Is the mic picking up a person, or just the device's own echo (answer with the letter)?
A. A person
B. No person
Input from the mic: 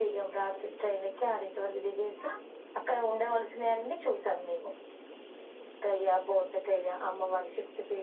B